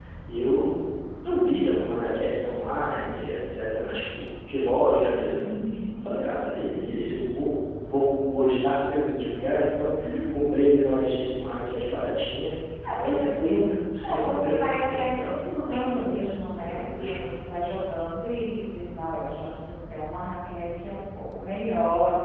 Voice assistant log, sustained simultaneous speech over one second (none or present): present